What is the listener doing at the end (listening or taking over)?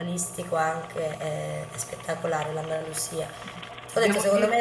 listening